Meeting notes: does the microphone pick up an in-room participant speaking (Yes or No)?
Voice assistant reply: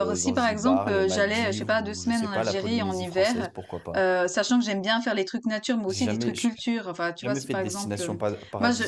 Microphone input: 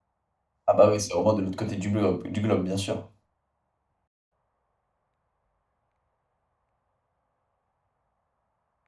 Yes